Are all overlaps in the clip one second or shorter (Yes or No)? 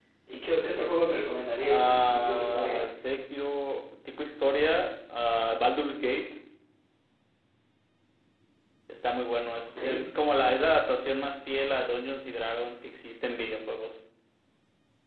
No